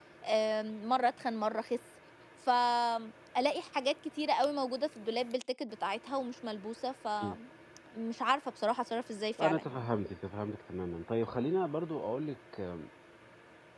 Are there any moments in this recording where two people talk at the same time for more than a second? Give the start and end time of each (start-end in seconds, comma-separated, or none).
none